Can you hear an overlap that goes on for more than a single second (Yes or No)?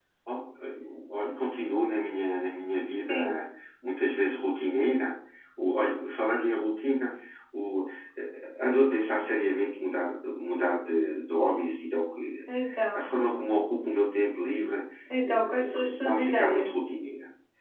Yes